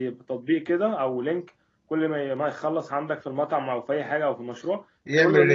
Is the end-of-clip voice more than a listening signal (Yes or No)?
No